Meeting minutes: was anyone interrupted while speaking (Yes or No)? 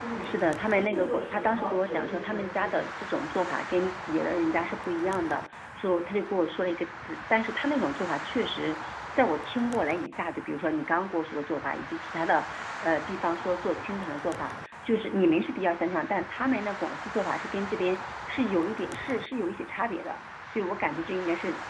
Yes